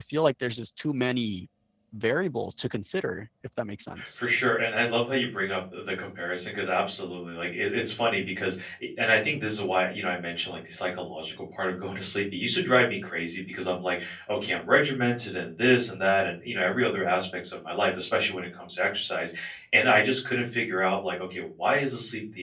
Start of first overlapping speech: none

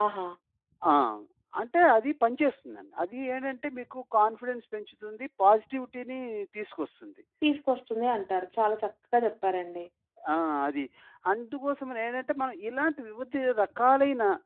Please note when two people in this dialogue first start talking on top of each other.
none

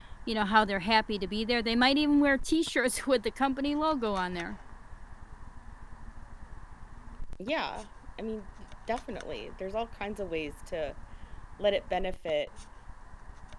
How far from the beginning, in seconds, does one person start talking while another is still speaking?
none

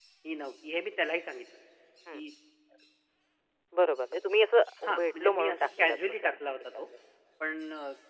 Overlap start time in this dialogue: 4.8 s

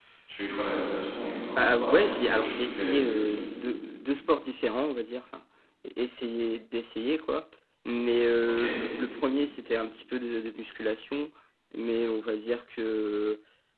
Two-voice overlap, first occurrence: 1.6 s

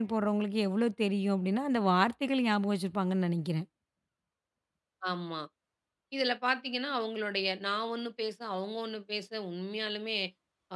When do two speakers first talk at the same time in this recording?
none

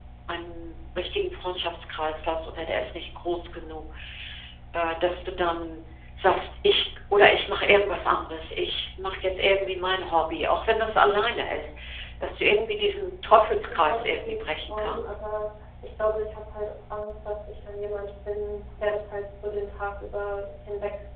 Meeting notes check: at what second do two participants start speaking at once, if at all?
13.7 s

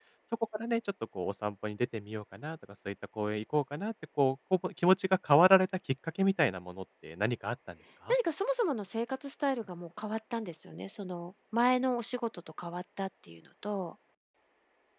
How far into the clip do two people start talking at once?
none

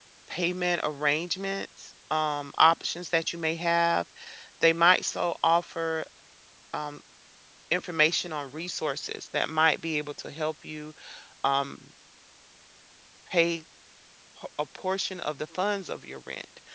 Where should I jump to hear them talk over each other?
none

